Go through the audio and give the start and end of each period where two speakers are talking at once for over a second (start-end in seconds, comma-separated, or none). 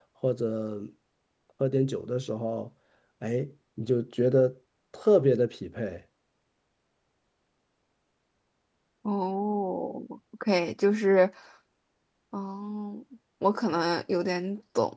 none